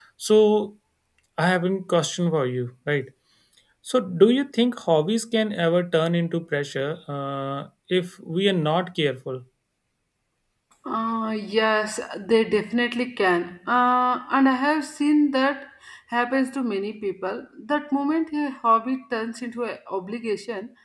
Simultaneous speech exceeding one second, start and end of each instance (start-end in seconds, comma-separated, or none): none